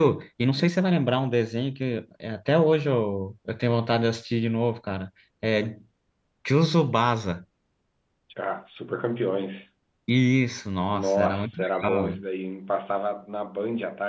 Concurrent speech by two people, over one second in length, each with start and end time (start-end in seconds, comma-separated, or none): 10.9-12.2